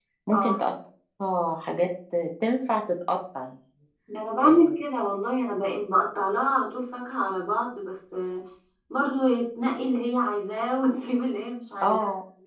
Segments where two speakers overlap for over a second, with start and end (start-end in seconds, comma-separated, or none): none